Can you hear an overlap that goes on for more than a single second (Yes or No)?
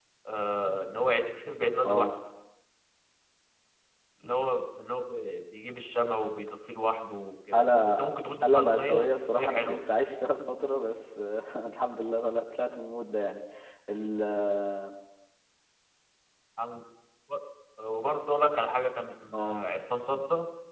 Yes